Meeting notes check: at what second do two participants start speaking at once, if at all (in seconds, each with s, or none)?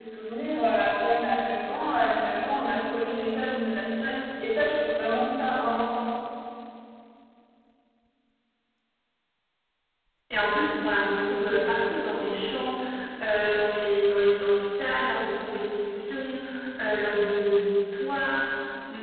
none